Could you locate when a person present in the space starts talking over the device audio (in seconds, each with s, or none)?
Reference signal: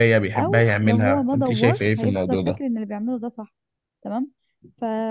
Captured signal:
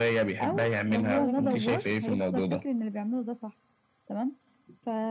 1.1 s